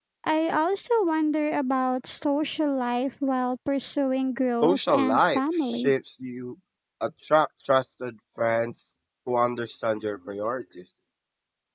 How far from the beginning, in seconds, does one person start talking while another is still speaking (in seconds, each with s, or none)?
4.6 s